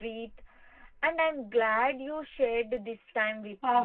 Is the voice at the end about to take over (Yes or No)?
Yes